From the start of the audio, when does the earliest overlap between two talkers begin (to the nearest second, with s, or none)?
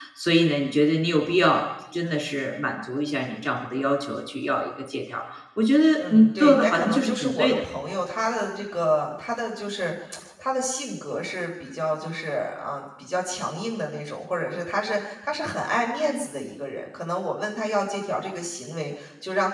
6 s